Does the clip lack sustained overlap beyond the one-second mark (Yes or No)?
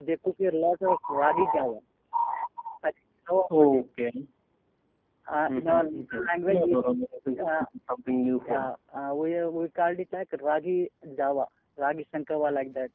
No